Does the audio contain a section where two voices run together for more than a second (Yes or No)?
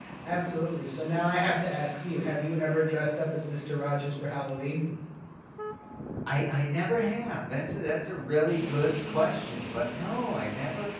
No